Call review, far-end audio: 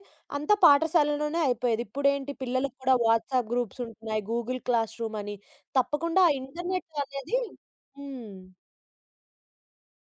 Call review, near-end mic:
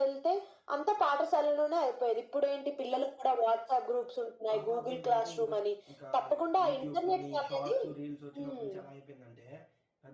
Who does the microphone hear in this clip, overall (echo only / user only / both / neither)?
both